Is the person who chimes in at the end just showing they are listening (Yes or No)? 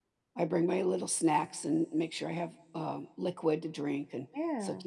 Yes